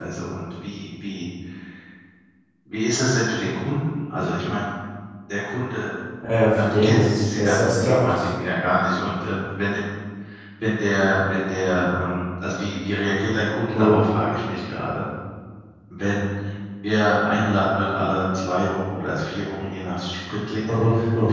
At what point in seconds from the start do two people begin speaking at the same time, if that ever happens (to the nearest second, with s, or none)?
7 s